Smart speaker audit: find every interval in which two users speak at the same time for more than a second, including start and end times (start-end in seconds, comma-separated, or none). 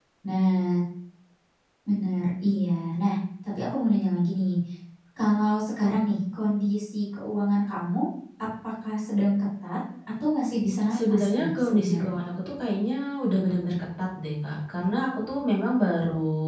10.9-12.2